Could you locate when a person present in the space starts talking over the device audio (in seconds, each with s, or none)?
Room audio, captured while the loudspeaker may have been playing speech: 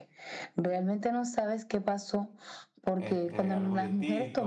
3.0 s